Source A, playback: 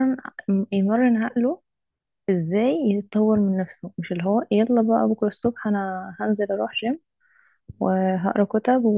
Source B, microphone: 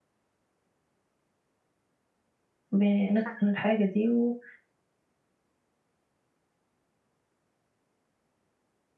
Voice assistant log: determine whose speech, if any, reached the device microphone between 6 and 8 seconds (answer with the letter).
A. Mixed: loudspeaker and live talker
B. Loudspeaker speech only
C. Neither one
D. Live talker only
C